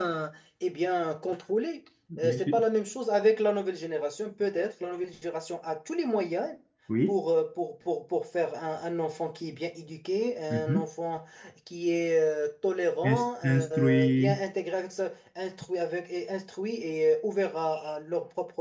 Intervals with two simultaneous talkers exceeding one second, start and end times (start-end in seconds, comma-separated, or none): 13.1-14.4